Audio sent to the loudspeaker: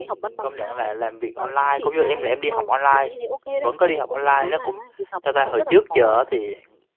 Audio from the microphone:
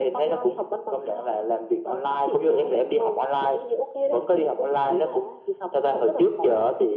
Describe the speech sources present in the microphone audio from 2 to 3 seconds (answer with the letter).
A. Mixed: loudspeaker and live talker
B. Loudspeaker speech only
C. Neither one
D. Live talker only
B